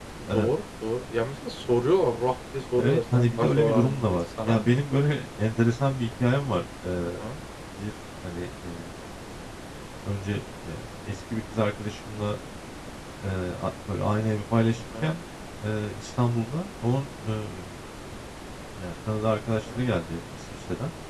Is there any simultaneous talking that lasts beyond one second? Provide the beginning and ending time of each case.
2.8-4.7

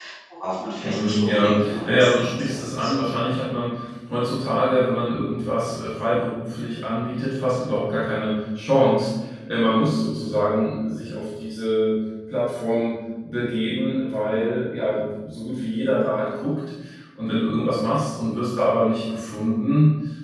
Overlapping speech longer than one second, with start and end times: 0.8-3.1

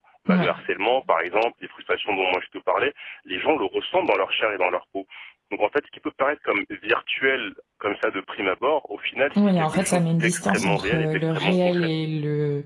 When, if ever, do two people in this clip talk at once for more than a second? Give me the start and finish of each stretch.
9.4-11.9

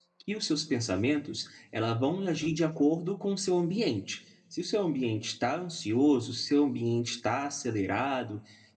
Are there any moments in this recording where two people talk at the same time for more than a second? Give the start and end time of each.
none

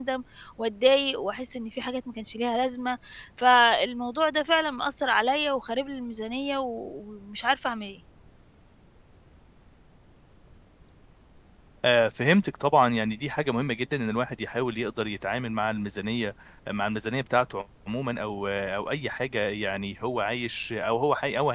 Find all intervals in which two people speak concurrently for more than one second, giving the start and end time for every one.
none

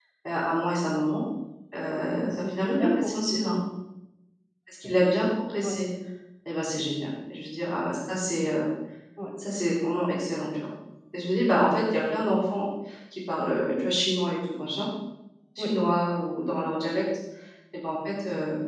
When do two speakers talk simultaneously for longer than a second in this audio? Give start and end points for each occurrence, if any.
2.2-3.6

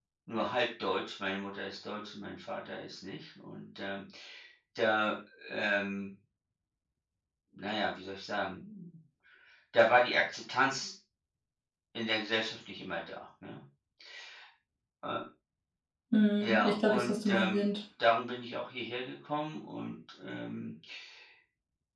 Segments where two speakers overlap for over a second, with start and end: 16.4-17.7

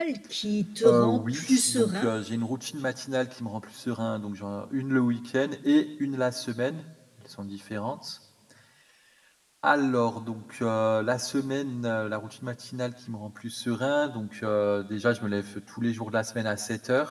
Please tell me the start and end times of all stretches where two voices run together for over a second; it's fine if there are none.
0.8-2.1

